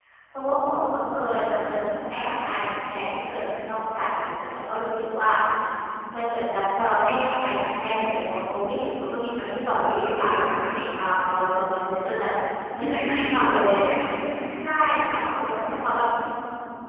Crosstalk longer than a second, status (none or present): present